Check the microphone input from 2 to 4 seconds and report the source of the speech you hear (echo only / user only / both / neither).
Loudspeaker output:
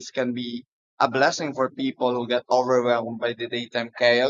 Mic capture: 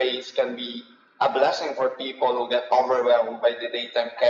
echo only